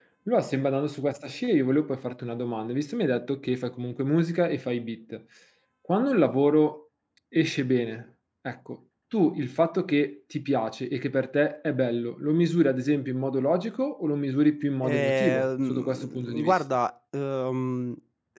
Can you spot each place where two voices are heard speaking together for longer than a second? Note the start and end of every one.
14.8-16.6

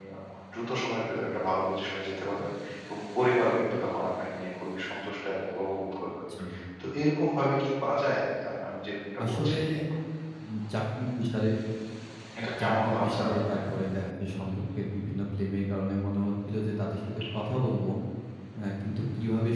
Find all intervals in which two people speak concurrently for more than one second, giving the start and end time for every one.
12.4-13.6

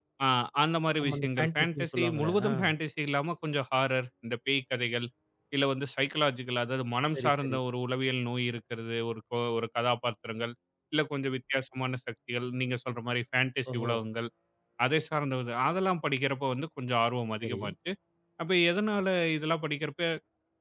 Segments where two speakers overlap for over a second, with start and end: 1.0-2.5

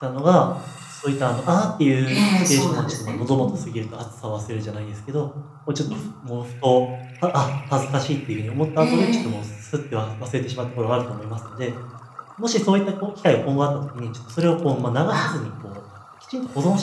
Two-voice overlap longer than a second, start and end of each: 2.1-3.6

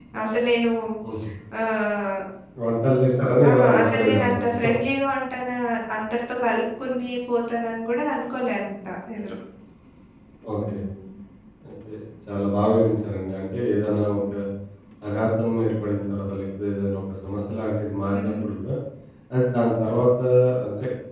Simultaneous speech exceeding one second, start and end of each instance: 3.5-4.7

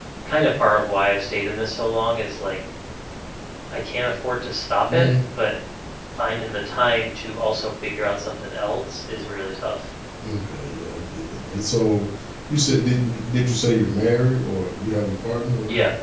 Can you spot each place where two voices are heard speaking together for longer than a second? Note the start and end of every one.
none

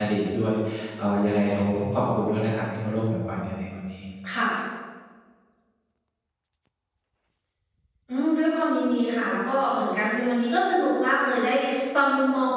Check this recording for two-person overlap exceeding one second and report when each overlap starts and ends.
none

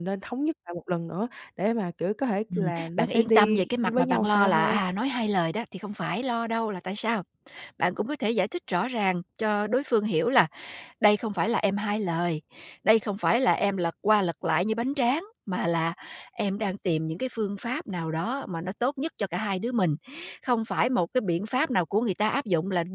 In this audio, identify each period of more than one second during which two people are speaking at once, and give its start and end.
2.6-4.8

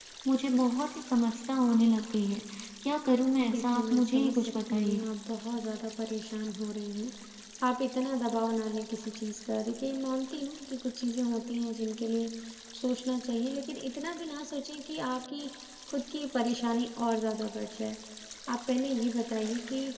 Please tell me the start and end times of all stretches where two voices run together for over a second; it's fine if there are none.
3.5-5.0

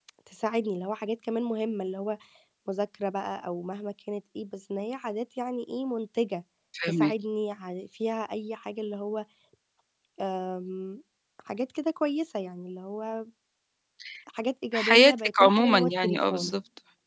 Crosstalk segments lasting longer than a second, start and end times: 14.7-16.5

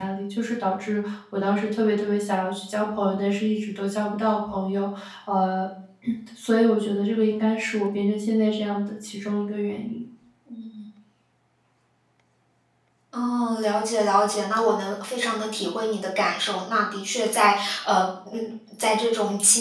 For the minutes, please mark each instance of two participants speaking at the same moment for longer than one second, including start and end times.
none

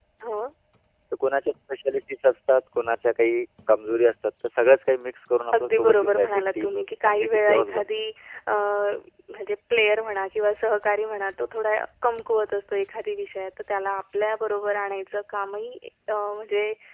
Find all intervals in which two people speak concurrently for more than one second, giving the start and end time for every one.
5.5-8.0

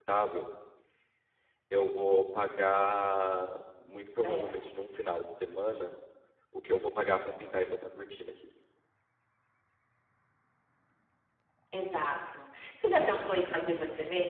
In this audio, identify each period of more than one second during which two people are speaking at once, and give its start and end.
none

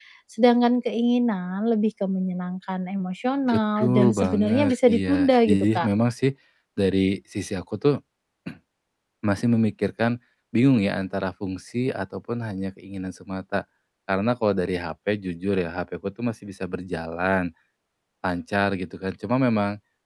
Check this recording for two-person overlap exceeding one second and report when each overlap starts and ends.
3.5-5.9

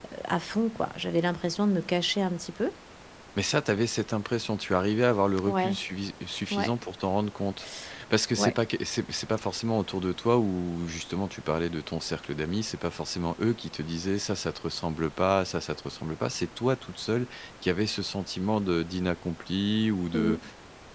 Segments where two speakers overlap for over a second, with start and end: none

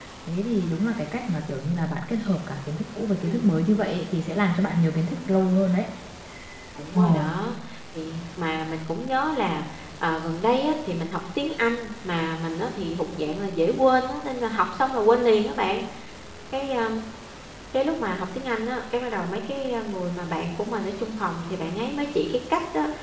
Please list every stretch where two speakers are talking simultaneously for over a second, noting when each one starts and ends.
none

